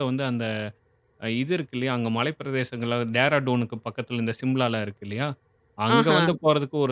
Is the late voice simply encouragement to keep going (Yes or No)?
Yes